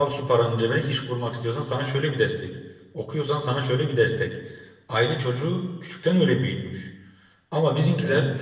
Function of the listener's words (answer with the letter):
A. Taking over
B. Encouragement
B